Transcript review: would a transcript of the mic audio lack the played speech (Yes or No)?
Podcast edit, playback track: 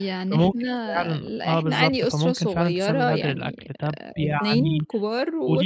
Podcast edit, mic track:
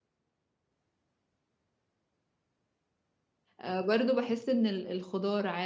Yes